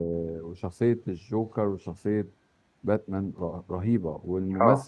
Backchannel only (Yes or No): Yes